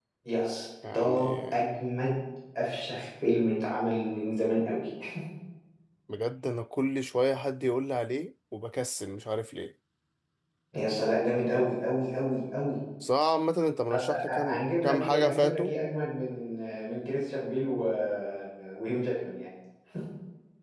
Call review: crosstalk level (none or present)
present